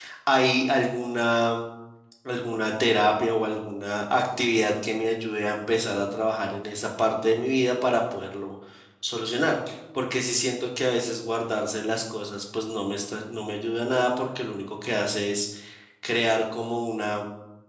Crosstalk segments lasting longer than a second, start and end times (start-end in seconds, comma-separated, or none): none